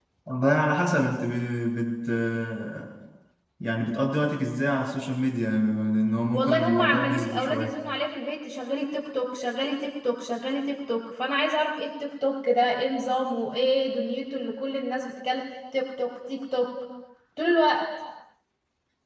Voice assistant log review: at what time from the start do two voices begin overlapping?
6.3 s

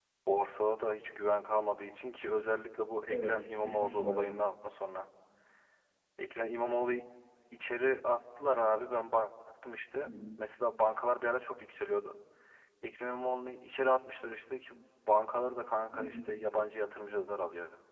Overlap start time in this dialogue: 3.1 s

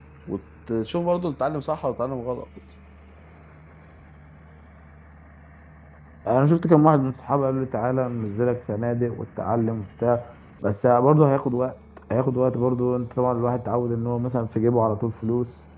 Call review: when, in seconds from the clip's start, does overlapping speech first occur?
none

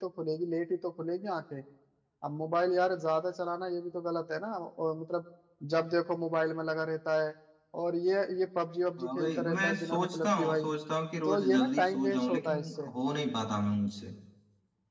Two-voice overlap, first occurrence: 9.0 s

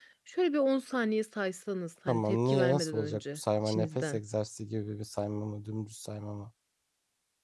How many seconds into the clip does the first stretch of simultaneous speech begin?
2.1 s

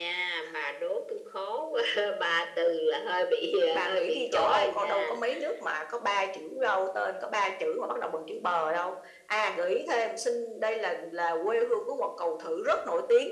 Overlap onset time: 3.7 s

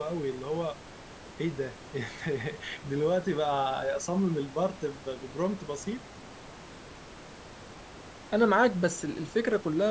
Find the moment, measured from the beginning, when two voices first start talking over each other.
none

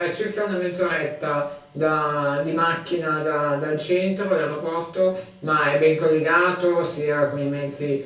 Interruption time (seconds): none

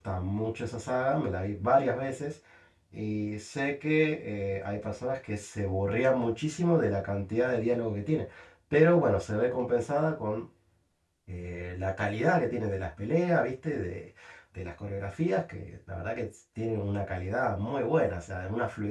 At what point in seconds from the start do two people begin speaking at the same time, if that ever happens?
none

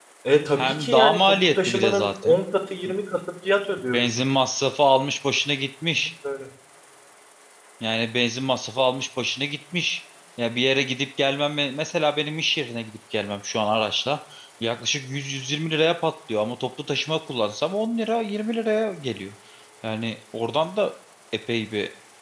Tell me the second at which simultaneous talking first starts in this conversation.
0.6 s

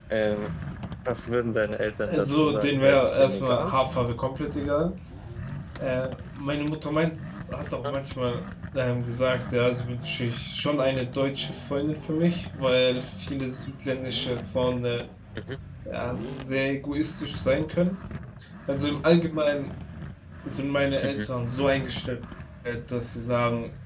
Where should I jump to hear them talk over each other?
2.1 s

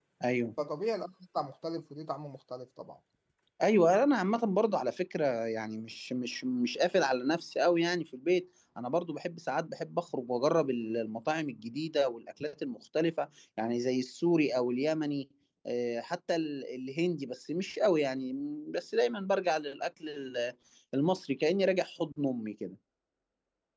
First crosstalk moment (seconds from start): none

